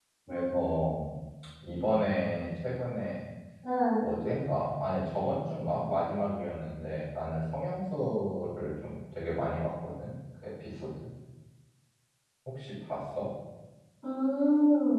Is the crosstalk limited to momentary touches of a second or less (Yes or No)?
Yes